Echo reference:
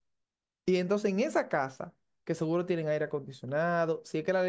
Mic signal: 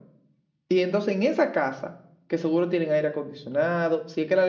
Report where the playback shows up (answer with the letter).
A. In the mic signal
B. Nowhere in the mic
A